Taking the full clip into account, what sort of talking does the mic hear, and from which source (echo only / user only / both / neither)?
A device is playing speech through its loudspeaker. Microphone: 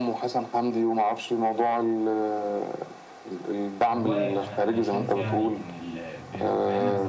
both